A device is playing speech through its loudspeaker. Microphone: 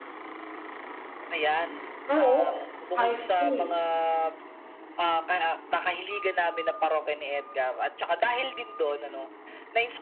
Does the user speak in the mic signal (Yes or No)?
Yes